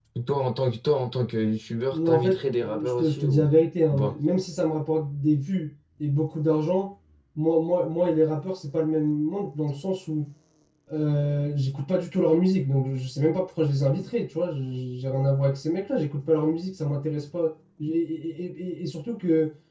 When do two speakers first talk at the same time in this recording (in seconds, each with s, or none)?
1.9 s